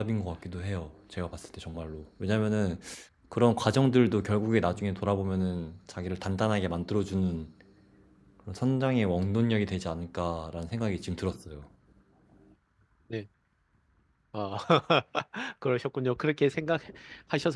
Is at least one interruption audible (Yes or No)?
No